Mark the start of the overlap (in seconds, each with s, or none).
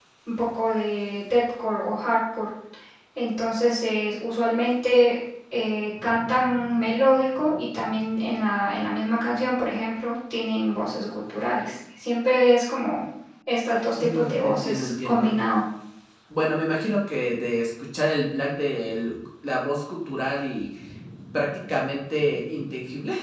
14.0 s